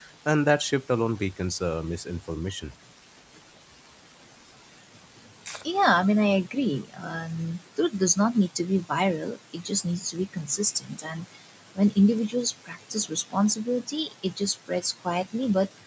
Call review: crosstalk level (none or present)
none